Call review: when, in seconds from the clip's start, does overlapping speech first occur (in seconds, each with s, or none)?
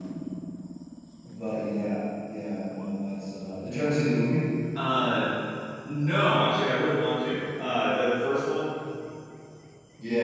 none